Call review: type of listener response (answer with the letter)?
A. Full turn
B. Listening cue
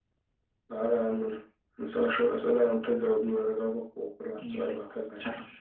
A